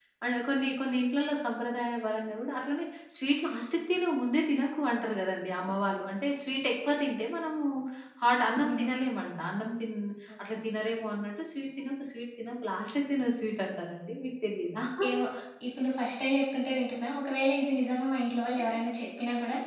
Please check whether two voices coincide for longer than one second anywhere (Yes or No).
No